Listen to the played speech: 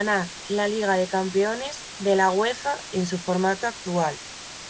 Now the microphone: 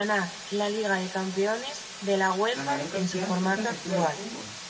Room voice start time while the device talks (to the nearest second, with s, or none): 2 s